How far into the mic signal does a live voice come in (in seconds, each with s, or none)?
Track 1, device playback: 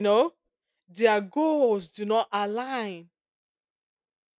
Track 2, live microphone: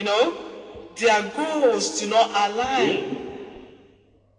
2.7 s